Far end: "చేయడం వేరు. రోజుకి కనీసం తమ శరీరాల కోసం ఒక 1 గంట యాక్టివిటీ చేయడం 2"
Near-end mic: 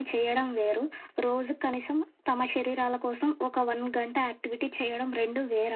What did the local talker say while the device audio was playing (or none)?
none